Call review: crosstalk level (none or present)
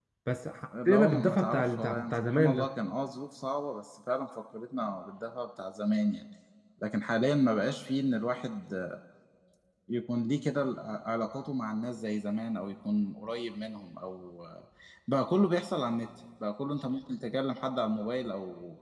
present